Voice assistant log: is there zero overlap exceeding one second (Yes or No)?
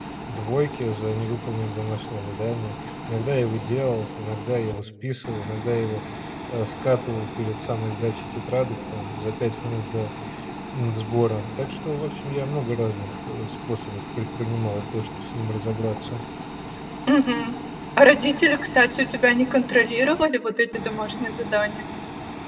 Yes